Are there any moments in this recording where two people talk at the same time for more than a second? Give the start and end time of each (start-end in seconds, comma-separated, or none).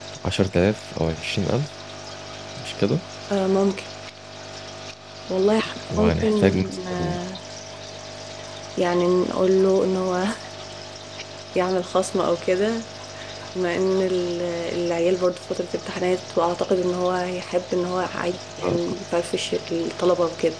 5.9-7.2